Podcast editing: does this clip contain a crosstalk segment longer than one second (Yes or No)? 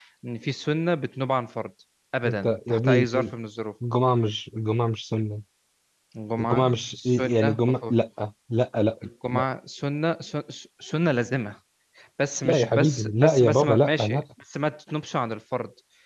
Yes